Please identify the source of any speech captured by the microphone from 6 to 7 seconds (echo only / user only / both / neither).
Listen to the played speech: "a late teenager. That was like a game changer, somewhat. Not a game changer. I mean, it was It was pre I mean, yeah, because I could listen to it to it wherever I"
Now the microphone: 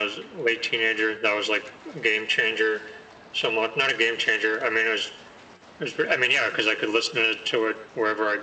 echo only